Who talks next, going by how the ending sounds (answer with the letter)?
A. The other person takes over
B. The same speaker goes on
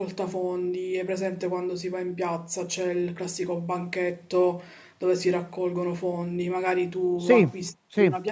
B